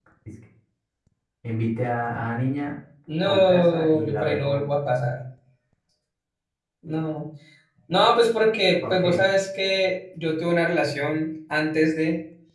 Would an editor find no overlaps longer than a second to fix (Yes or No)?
No